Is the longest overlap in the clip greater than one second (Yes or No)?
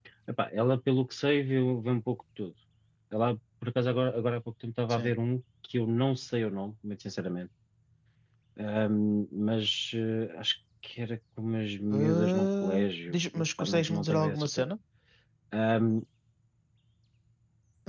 Yes